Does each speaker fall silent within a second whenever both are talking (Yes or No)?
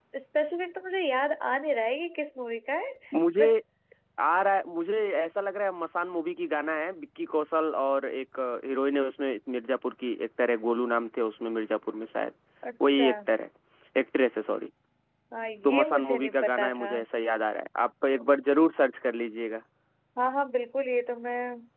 No